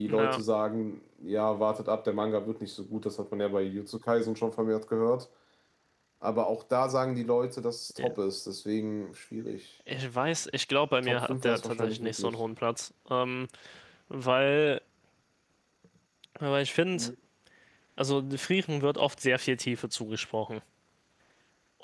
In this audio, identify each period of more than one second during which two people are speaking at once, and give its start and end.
11.0-12.3

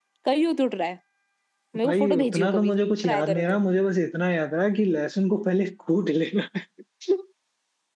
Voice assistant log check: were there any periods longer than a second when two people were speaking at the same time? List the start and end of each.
1.8-3.4

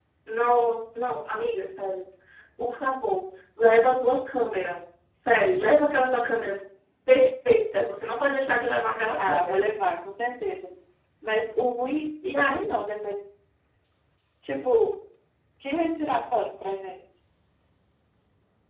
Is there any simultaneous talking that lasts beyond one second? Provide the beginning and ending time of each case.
none

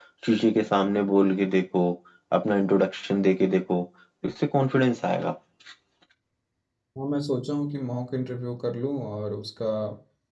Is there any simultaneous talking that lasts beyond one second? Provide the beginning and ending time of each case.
none

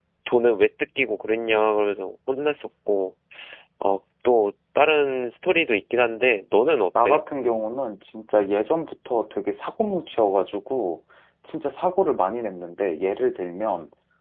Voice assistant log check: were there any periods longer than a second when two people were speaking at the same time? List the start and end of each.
none

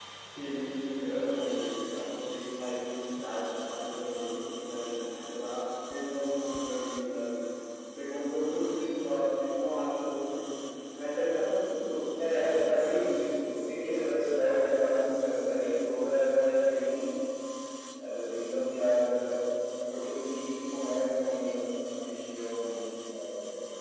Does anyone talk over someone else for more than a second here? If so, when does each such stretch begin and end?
12.2-13.6

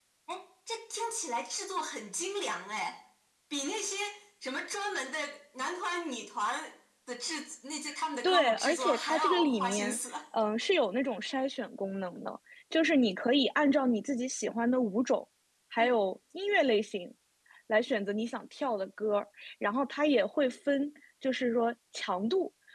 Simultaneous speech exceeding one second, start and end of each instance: 8.2-10.0

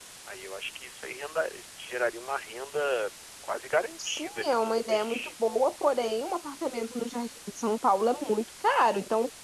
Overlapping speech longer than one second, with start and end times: 4.0-5.3

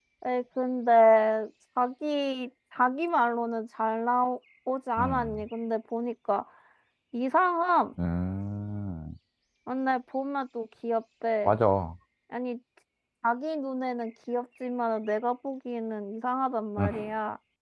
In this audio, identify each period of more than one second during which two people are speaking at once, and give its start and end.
none

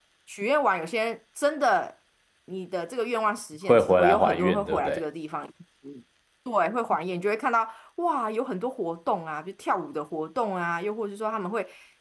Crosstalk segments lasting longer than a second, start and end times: 3.7-5.0

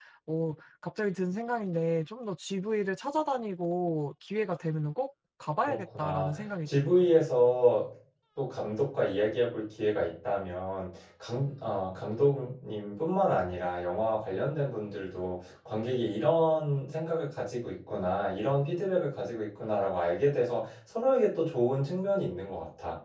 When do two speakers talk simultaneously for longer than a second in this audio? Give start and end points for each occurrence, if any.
5.7-7.0

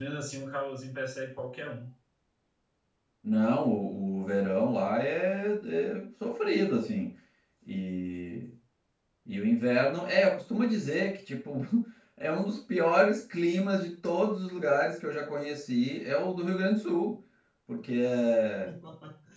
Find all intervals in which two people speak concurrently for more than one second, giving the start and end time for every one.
none

